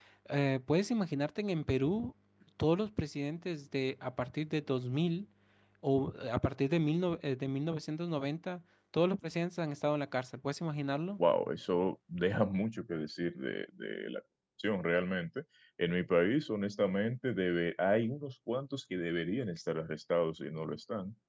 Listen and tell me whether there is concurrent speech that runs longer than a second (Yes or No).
No